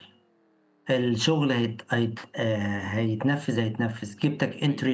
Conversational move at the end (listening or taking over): listening